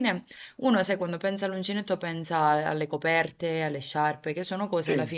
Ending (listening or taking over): taking over